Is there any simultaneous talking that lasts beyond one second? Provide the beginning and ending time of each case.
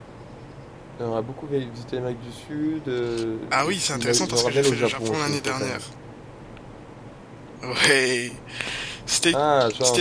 3.5-5.8

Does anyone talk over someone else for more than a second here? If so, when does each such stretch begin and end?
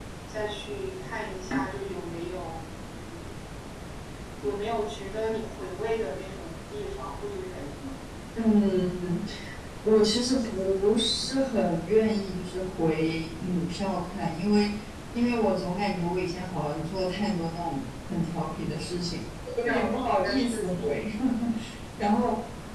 19.6-20.9

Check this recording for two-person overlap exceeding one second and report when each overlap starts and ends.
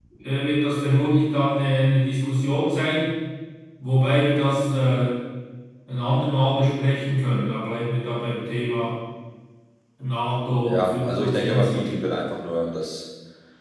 10.7-11.9

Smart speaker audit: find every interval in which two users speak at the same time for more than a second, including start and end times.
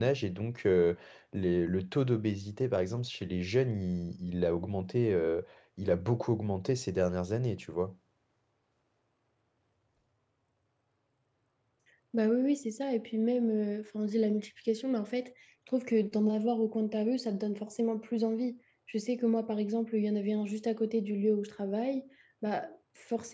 none

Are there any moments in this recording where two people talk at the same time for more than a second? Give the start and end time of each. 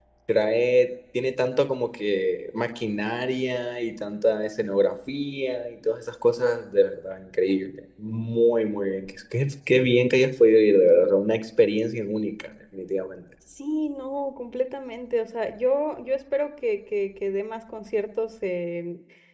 none

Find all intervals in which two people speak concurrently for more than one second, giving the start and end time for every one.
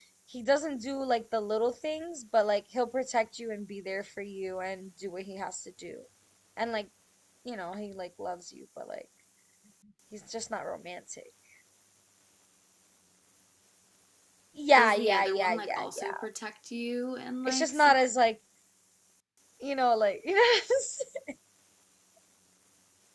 14.8-16.2

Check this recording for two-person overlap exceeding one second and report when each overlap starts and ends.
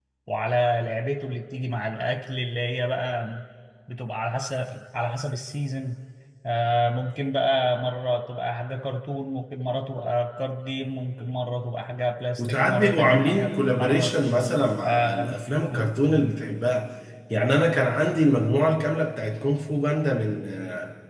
12.4-14.2

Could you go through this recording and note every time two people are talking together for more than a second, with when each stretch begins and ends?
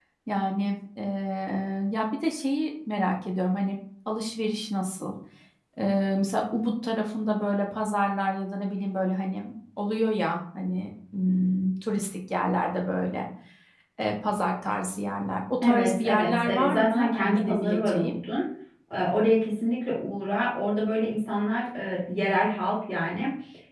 15.6-18.1

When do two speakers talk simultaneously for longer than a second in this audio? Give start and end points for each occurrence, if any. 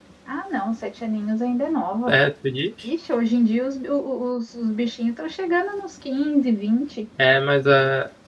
none

